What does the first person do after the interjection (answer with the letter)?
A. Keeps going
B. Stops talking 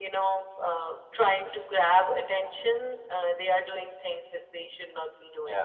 B